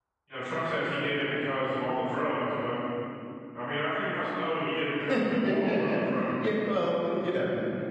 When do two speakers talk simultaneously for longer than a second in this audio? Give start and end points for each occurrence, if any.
5.1-6.3

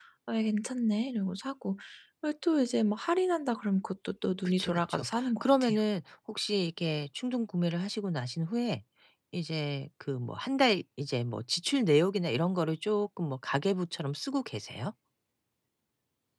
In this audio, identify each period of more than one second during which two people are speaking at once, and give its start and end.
4.5-5.8

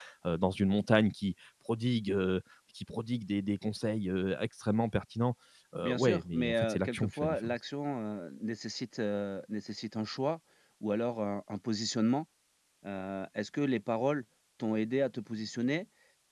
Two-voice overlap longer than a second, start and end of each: 5.8-7.6

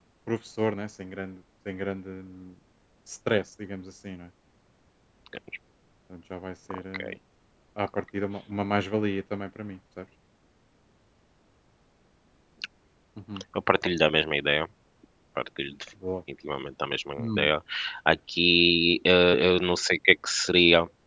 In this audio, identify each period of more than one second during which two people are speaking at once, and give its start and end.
none

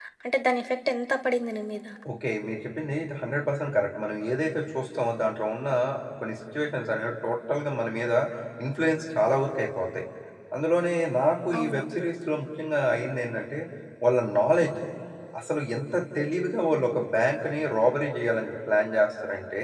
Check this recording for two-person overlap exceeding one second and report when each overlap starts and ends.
none

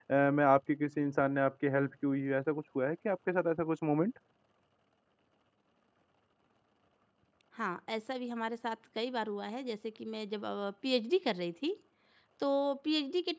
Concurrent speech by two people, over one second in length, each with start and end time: none

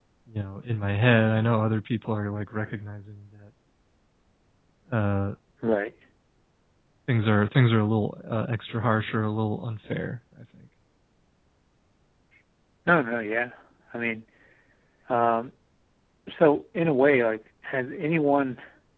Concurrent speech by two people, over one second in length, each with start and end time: none

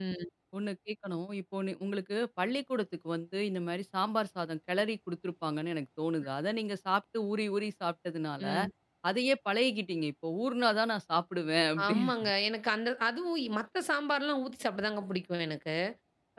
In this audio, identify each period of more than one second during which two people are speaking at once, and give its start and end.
none

